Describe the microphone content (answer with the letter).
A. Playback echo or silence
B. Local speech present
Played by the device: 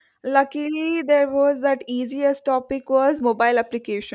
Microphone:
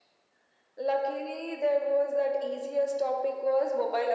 A